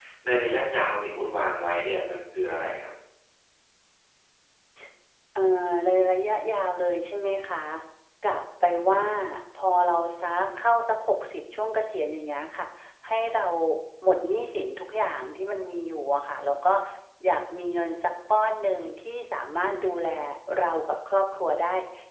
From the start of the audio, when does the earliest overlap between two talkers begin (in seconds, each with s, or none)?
none